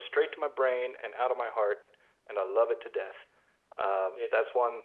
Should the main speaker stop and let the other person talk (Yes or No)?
No